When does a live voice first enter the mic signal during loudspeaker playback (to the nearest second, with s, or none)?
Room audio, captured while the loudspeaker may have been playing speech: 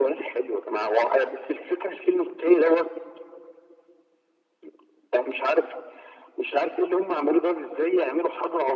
none